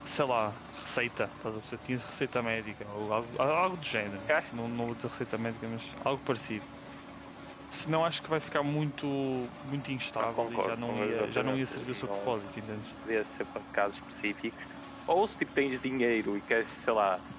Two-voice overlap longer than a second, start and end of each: 10.2-12.3

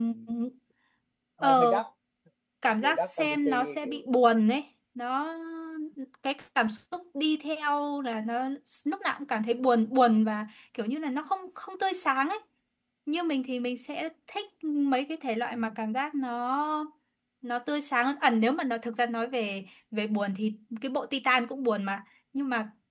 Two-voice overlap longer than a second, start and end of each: 2.8-4.0

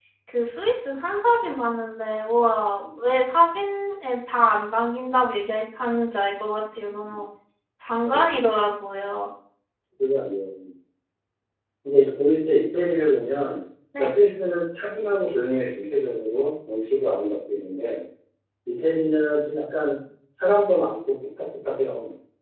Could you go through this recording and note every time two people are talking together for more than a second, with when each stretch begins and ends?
none

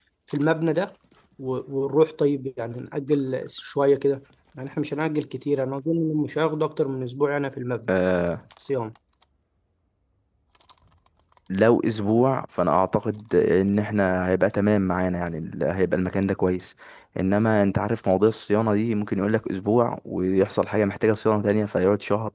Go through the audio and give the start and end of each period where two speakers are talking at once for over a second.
none

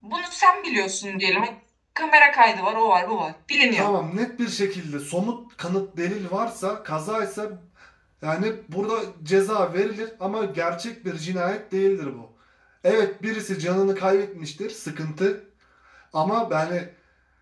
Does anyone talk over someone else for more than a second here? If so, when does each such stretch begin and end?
none

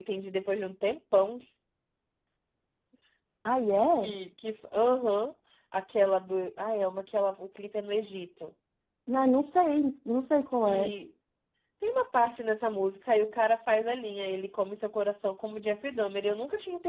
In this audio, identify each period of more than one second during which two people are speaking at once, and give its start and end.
none

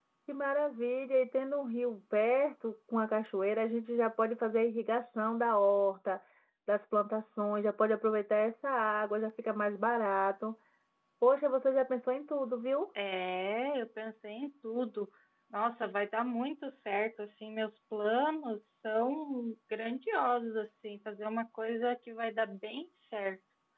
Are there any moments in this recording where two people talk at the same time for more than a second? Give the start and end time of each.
none

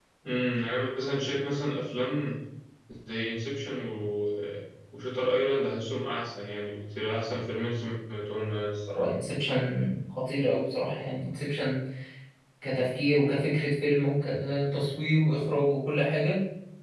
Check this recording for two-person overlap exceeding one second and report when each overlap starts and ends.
none

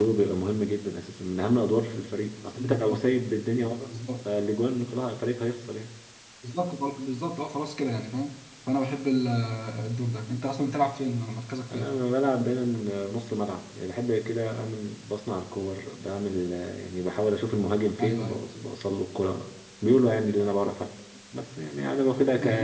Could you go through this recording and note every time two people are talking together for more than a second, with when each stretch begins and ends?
none

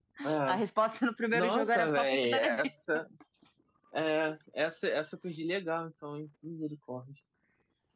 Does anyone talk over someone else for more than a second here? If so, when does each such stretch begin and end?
1.3-2.7

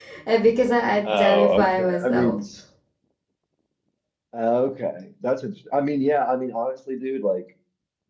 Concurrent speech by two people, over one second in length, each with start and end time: 1.1-2.4

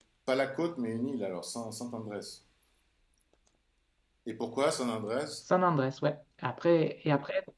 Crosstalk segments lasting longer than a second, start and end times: none

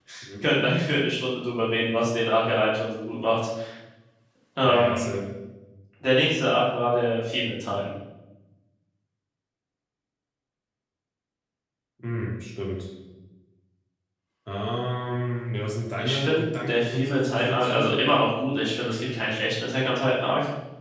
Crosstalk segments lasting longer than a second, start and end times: 15.9-18.0

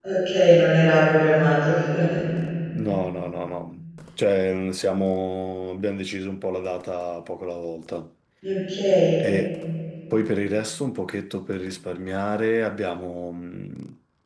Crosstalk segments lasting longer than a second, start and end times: none

